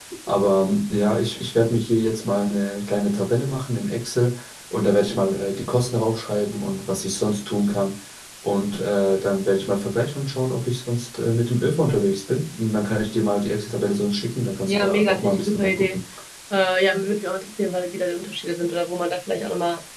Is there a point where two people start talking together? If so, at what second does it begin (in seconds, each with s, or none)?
14.7 s